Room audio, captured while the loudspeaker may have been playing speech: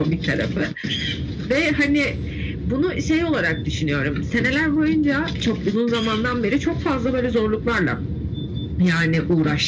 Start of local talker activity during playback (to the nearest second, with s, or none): none